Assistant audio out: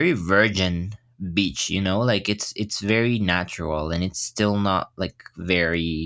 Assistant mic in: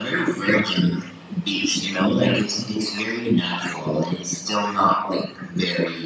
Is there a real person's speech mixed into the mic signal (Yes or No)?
No